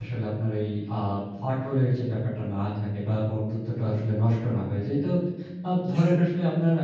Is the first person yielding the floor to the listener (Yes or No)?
No